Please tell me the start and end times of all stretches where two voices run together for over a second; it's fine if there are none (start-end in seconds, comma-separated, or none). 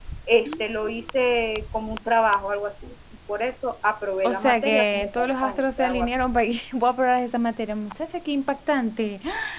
4.2-6.1